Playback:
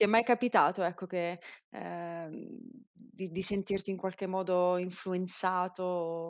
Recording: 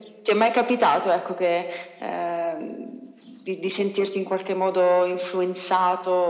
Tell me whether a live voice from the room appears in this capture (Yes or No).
No